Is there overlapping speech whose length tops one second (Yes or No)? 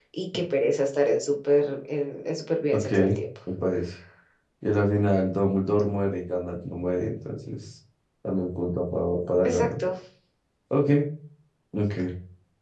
No